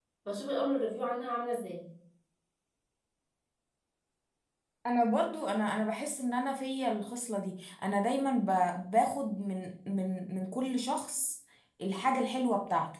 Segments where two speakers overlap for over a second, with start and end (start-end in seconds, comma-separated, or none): none